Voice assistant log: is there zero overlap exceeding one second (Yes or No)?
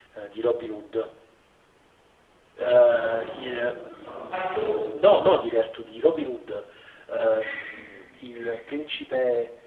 No